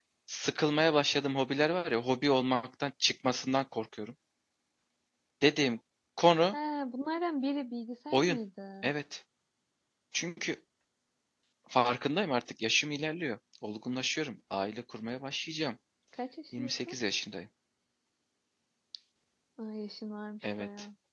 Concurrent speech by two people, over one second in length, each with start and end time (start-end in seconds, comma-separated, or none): none